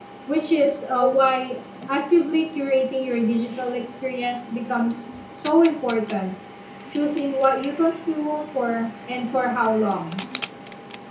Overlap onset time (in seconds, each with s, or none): none